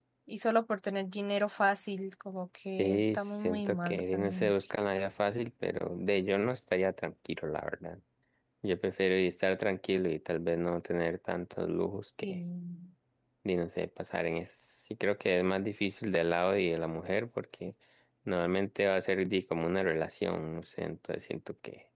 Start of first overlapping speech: 3 s

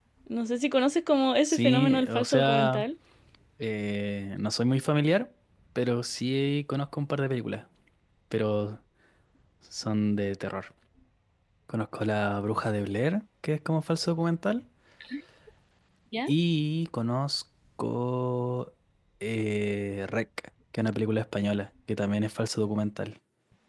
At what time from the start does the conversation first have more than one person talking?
1 s

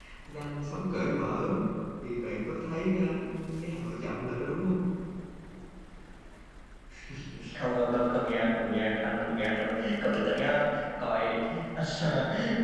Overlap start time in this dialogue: none

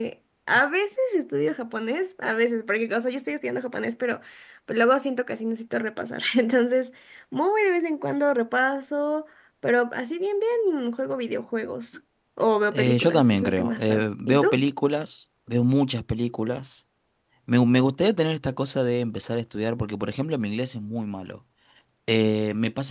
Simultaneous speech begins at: 13 s

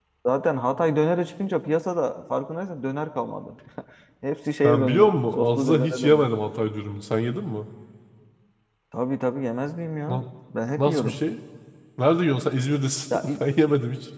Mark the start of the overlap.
5 s

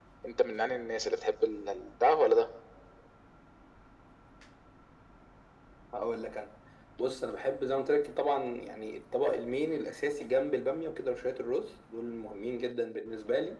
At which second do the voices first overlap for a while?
none

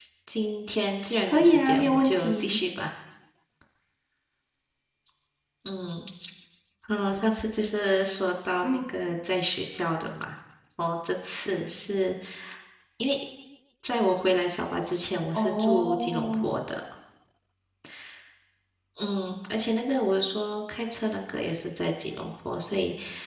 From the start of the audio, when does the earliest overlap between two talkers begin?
1 s

